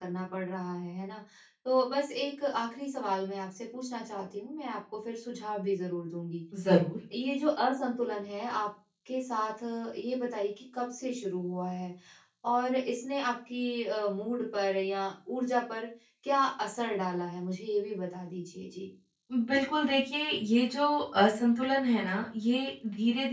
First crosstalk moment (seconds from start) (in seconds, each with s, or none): none